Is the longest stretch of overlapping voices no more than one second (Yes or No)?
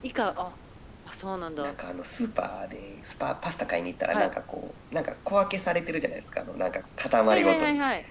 Yes